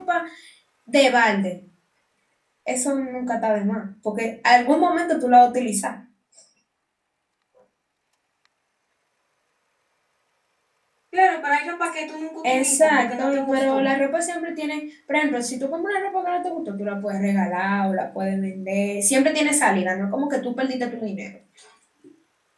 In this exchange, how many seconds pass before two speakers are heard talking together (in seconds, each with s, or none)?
12.4 s